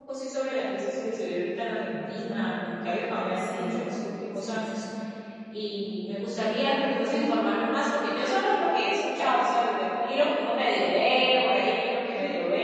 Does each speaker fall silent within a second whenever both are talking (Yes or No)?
Yes